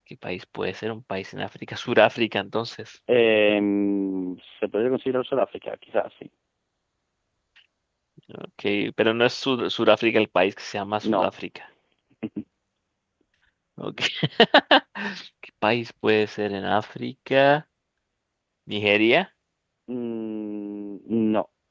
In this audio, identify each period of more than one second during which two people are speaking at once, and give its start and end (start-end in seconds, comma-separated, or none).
none